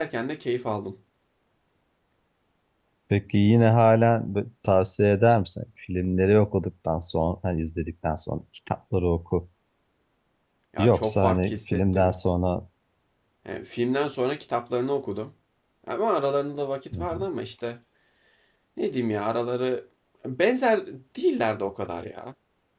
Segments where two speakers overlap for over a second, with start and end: 10.8-12.1

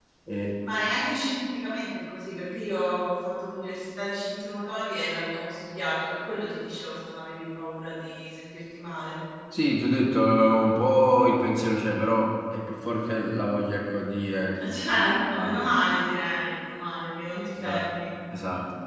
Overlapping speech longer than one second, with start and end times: none

